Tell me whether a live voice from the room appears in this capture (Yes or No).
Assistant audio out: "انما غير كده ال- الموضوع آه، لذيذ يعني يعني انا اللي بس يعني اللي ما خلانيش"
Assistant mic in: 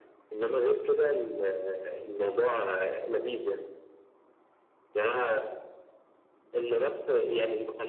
No